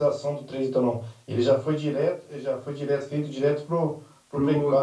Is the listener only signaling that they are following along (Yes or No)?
No